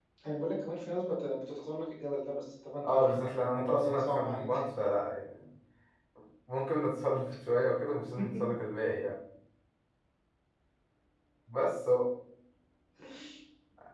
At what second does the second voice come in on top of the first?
2.8 s

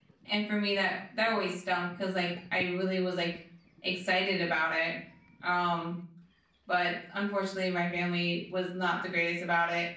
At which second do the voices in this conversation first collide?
none

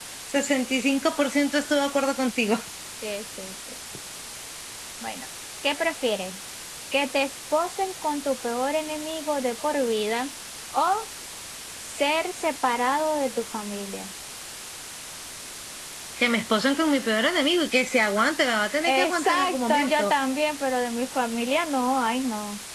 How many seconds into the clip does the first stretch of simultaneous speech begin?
18.9 s

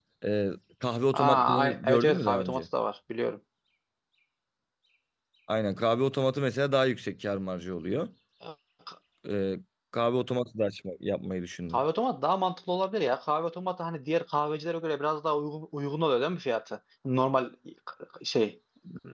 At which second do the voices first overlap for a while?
1.1 s

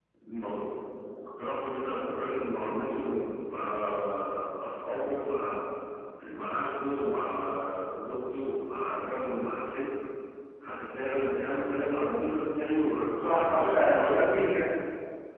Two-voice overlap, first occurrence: 13.2 s

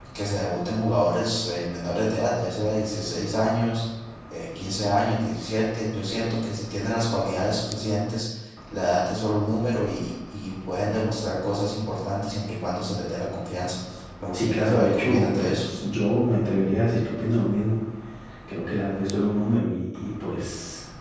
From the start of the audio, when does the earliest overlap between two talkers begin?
14.3 s

